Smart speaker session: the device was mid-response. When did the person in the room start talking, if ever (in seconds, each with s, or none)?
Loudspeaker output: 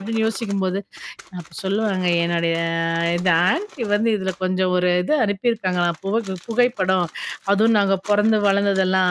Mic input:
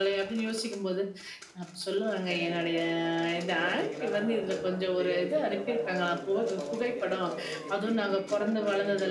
2.3 s